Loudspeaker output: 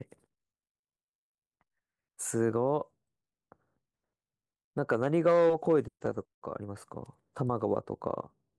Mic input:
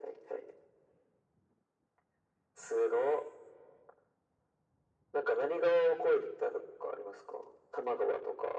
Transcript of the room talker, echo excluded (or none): none